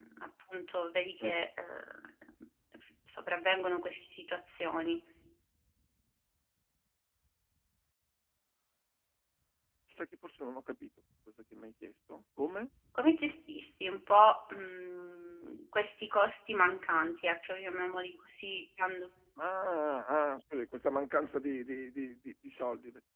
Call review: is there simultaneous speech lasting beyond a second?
No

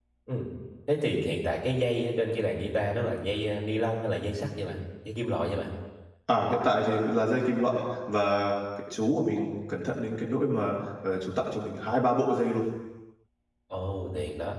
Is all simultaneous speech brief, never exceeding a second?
Yes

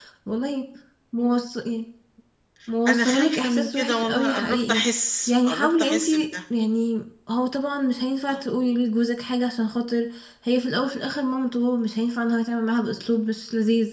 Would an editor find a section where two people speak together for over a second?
Yes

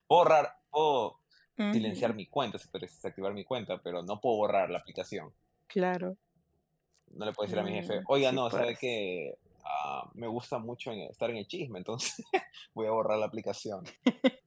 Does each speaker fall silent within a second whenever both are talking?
No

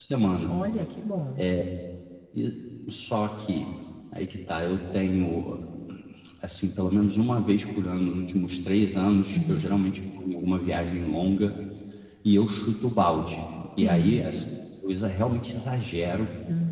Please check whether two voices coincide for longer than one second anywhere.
No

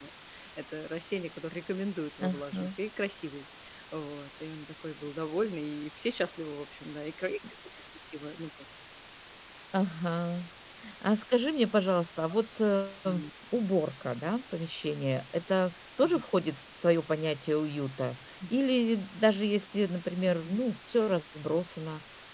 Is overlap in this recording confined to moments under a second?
Yes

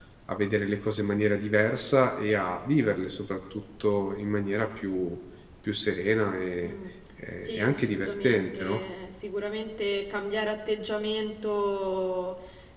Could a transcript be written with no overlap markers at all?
No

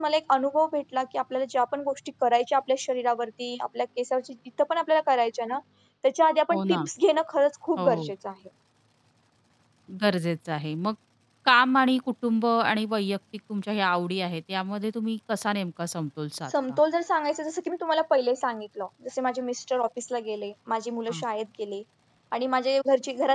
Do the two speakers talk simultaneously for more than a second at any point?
No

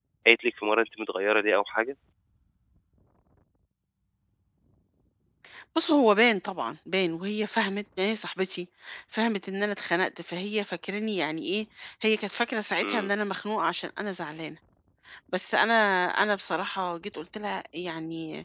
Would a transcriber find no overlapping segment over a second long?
Yes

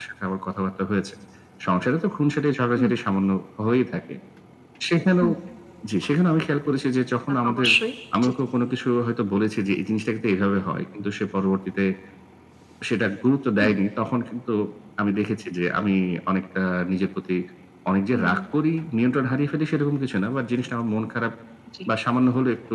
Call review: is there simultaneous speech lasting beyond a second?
No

